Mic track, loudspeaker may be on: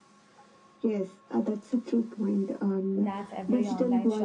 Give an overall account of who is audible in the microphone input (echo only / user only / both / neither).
both